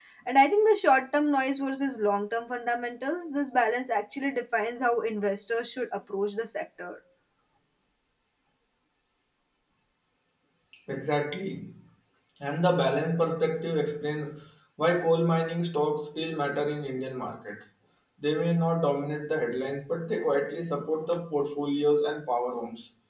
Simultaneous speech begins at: none

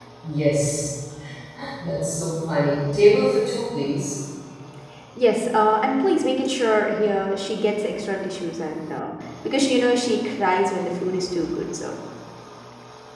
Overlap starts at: none

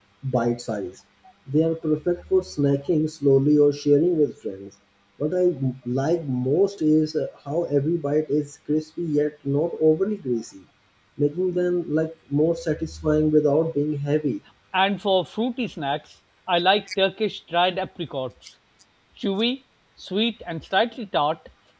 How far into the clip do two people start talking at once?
none

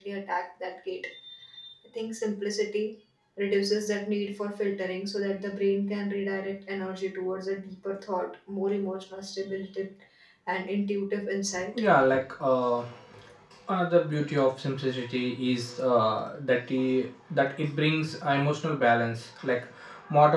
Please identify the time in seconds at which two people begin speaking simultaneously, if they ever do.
none

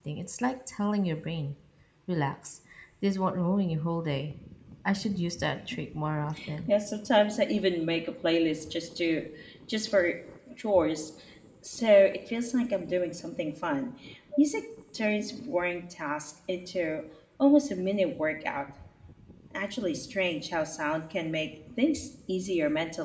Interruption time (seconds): none

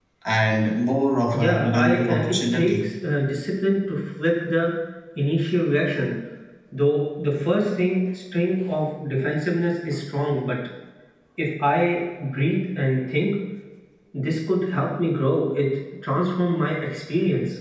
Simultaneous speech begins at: 1 s

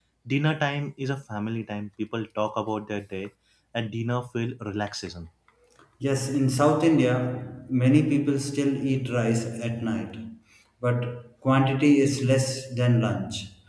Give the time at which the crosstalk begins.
none

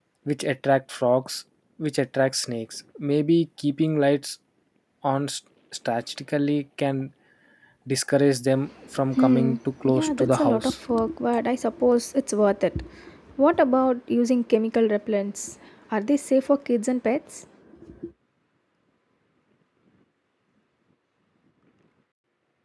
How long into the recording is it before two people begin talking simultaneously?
9 s

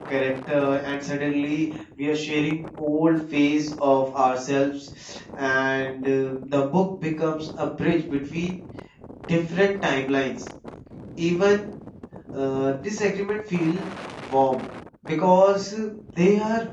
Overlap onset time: none

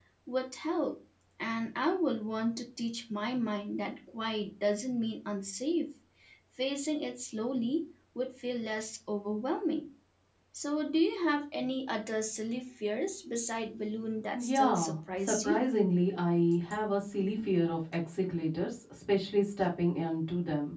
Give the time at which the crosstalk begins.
14 s

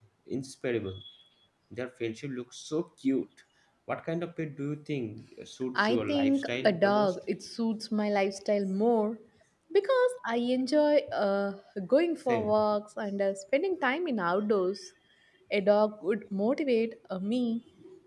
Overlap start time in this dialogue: 6 s

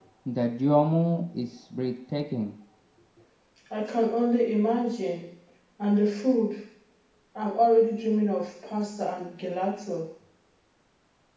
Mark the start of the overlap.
none

